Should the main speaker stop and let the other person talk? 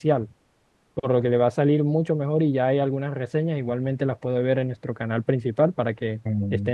Yes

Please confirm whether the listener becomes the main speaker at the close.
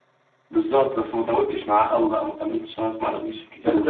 Yes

